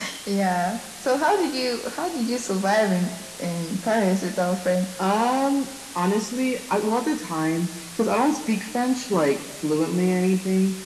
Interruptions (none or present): none